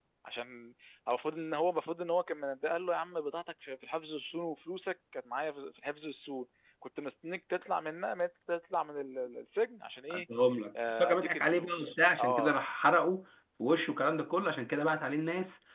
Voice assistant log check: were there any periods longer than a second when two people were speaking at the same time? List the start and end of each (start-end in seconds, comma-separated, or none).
11.0-12.6